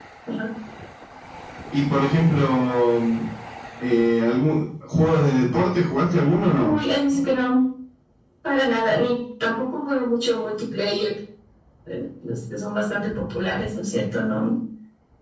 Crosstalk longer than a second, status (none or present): none